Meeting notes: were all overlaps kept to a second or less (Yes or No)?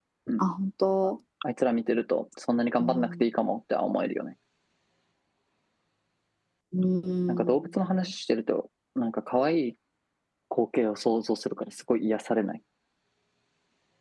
Yes